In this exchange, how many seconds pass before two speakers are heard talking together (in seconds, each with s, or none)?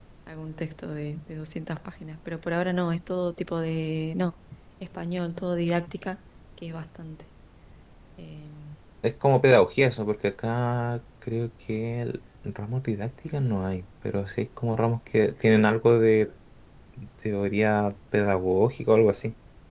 none